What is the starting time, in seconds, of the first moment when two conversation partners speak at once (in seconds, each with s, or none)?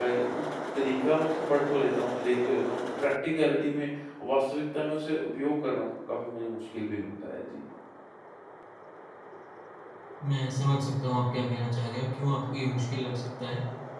none